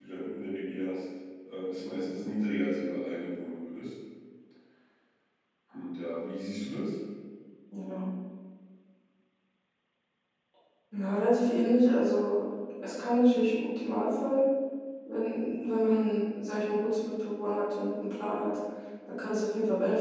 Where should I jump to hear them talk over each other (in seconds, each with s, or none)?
none